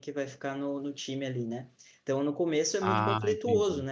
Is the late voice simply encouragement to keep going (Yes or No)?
Yes